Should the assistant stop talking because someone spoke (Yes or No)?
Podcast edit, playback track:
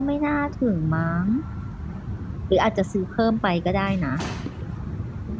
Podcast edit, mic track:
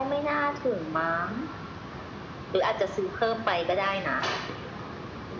No